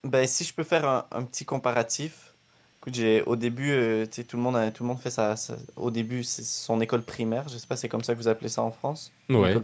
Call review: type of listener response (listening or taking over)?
taking over